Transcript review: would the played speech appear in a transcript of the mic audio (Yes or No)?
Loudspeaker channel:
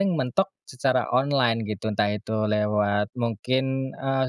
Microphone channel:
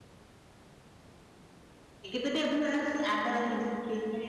No